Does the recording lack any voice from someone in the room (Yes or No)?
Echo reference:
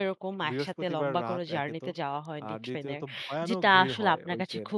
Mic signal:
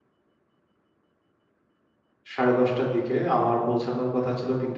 No